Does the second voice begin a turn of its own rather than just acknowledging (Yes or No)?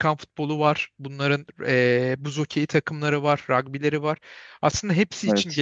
No